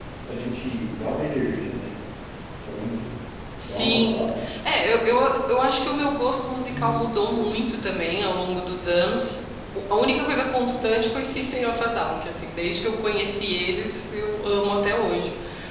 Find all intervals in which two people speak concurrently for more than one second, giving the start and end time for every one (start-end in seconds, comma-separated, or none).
none